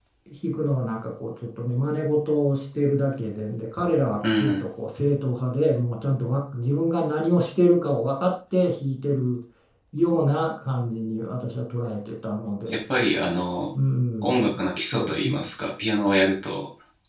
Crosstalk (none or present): present